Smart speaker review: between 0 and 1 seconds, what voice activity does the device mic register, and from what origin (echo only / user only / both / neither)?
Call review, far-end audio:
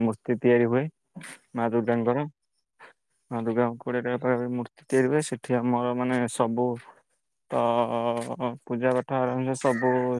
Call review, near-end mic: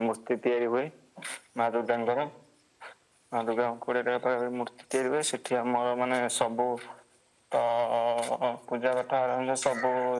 echo only